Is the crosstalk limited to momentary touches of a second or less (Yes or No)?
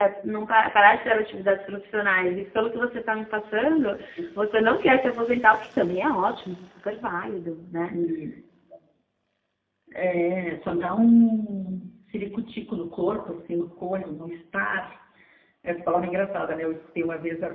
Yes